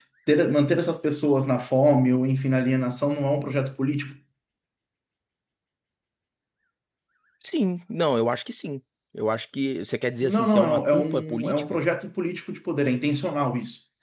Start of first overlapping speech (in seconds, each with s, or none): 10.2 s